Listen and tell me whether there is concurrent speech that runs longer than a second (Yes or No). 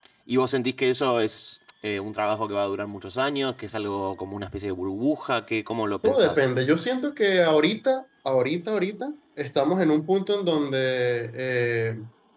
No